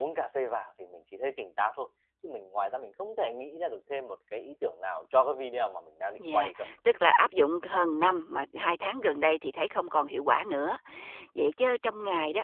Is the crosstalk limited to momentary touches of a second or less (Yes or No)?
Yes